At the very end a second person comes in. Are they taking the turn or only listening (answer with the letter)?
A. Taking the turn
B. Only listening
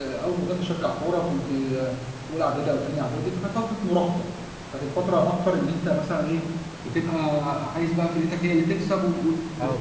A